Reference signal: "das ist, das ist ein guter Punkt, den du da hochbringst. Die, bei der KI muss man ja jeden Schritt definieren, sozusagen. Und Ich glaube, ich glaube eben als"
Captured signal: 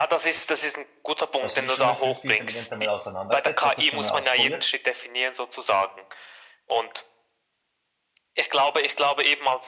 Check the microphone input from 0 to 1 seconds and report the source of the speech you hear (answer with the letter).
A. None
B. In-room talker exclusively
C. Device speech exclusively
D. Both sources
C